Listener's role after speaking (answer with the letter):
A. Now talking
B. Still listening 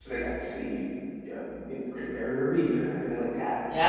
A